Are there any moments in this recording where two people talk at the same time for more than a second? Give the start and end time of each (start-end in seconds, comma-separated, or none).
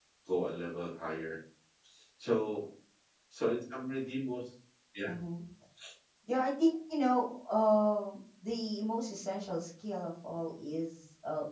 none